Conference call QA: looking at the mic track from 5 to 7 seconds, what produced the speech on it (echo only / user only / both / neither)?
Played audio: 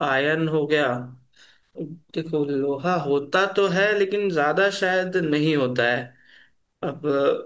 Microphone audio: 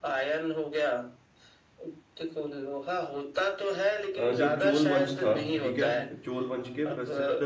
both